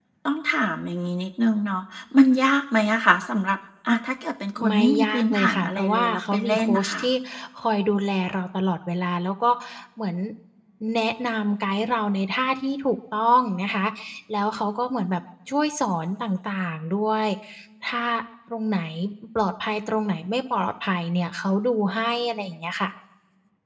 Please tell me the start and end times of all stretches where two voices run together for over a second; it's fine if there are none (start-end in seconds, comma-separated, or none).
4.7-7.0